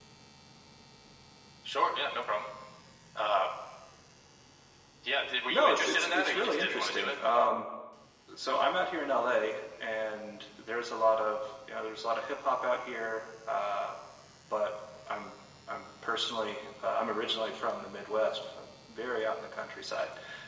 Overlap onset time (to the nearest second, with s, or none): 5 s